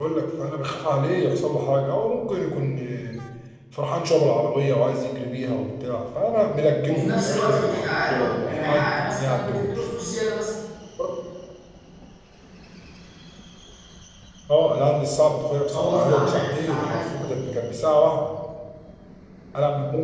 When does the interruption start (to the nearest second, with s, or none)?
7 s